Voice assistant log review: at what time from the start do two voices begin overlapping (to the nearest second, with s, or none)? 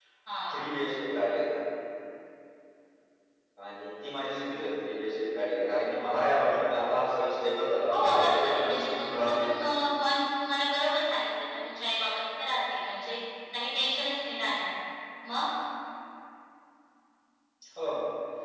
8 s